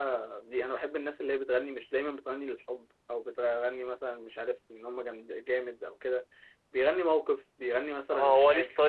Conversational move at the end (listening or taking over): taking over